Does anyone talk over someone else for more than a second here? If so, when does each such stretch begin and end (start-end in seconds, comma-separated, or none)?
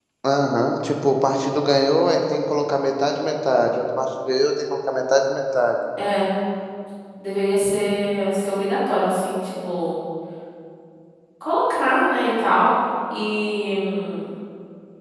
none